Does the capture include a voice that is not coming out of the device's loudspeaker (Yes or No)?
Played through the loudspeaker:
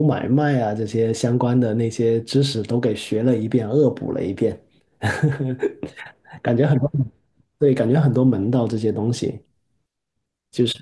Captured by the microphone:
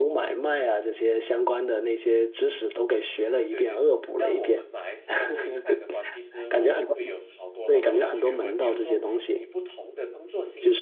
Yes